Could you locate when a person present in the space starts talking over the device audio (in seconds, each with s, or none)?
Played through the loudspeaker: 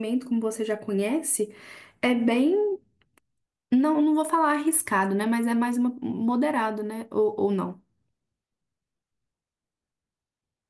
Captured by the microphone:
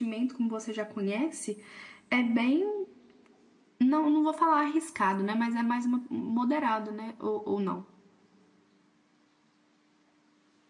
none